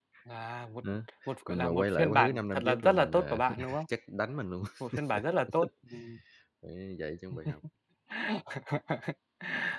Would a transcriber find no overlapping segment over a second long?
No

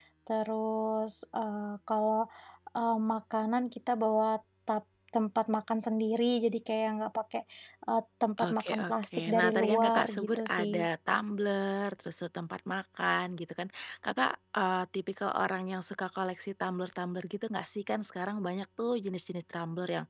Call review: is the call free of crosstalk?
No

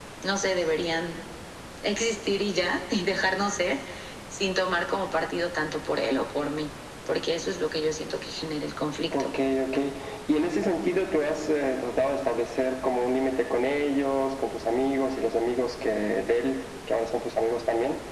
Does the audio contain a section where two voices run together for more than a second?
No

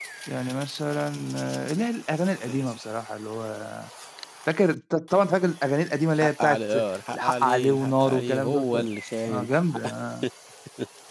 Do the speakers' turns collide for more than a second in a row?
Yes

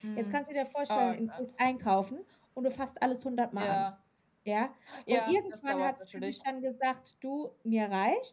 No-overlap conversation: No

